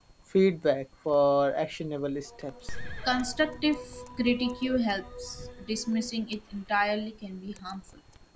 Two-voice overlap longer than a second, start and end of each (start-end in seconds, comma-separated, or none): none